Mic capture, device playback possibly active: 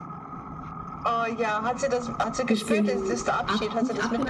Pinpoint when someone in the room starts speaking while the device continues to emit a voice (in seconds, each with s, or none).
2.5 s